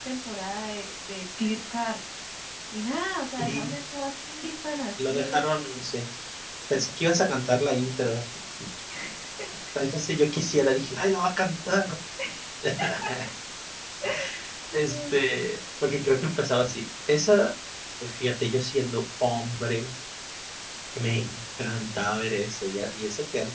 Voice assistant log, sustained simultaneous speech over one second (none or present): none